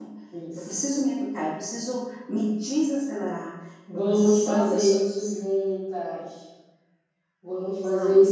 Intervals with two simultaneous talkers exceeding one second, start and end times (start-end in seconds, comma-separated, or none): 3.9-5.4